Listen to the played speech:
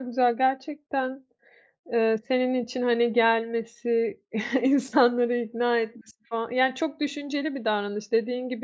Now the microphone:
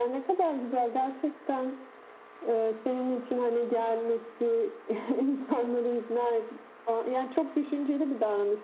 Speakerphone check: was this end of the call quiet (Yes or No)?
Yes